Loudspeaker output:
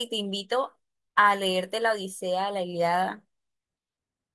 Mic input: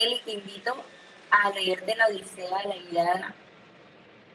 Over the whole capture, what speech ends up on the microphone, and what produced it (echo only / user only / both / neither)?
echo only